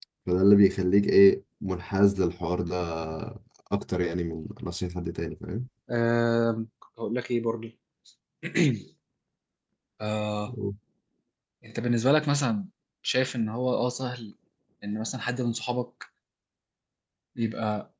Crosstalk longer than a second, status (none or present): none